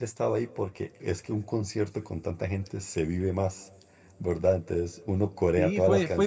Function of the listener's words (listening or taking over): taking over